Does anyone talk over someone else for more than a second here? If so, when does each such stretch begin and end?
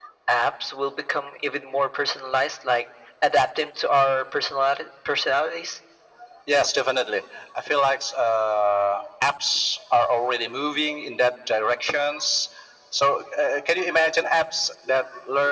none

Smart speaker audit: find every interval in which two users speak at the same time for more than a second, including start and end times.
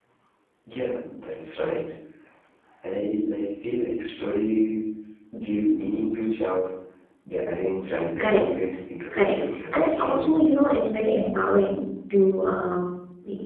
9.1-10.4

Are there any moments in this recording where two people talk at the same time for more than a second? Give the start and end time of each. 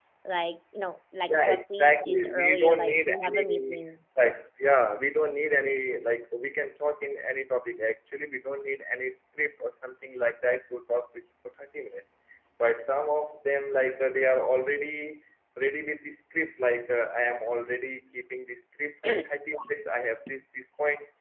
1.3-3.8

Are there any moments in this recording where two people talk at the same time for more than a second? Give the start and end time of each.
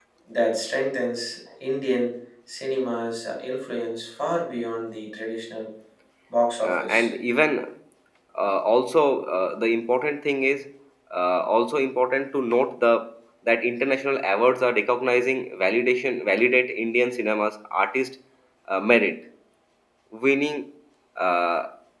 none

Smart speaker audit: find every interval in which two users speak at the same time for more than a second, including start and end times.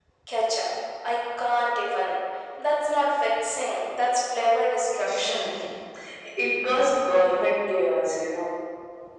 none

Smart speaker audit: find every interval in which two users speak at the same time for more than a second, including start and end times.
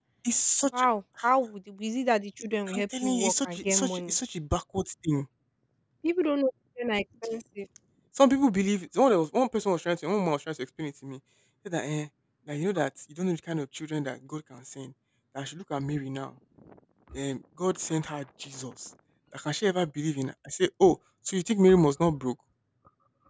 2.7-4.1

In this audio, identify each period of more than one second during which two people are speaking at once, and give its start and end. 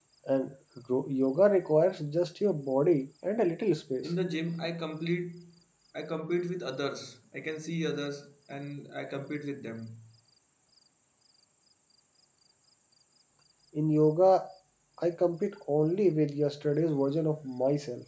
none

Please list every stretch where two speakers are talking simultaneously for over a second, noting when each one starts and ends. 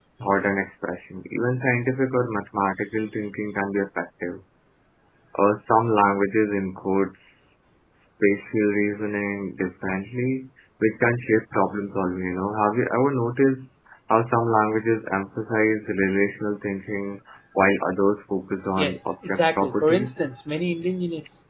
18.8-20.1

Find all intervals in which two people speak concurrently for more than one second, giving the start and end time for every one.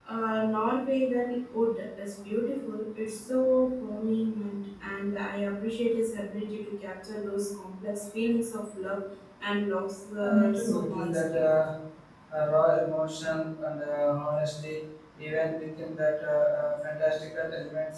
10.2-11.4

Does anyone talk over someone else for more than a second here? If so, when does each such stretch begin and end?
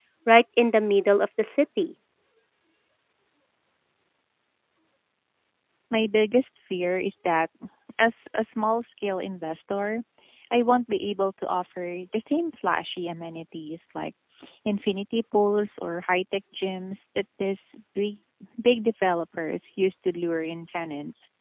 none

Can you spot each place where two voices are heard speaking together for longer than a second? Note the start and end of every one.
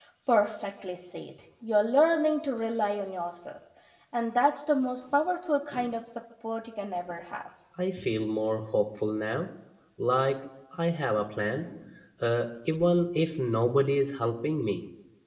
none

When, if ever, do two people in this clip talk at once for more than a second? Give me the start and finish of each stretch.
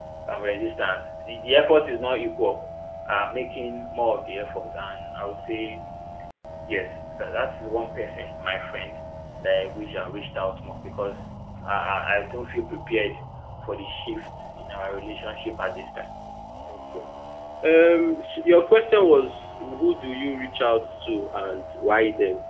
none

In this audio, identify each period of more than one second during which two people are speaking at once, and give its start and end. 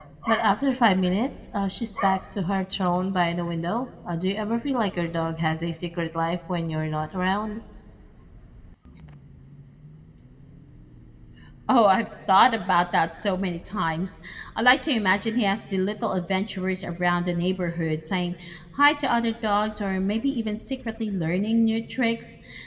none

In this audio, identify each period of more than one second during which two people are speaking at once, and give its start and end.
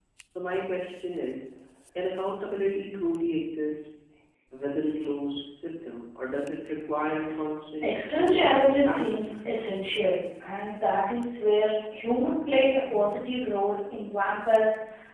7.8-9.2

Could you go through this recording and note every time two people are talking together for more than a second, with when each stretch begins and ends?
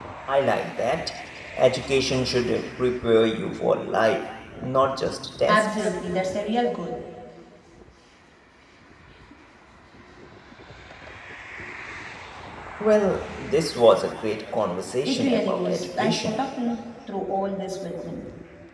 15.0-16.3

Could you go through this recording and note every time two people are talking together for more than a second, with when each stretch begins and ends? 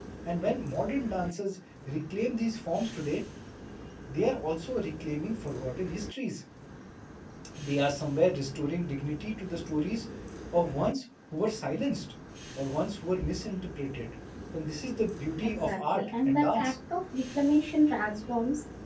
15.4-16.7

